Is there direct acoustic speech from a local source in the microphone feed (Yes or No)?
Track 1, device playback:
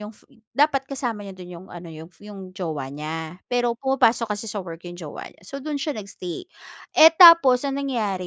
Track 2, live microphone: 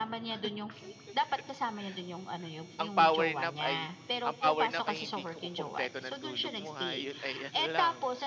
Yes